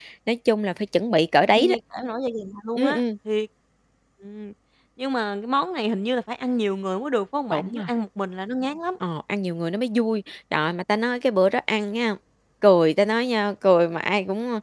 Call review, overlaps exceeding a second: none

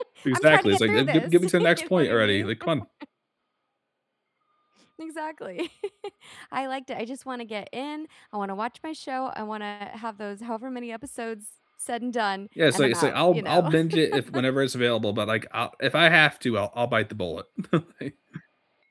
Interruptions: present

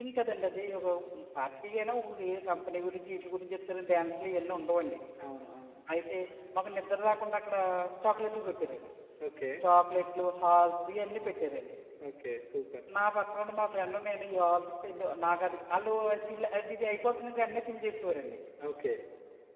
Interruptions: none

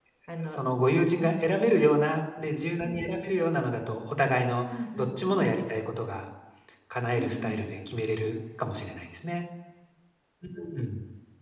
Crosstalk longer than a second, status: none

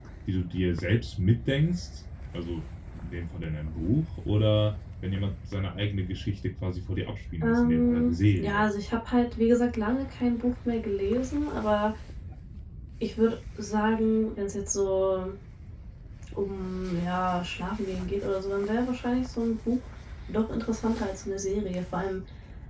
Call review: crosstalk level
present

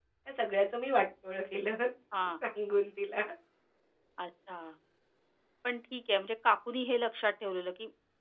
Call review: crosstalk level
none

